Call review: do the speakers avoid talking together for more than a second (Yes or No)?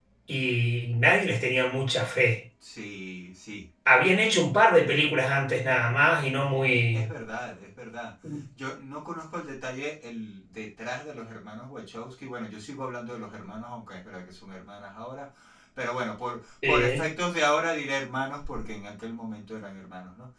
Yes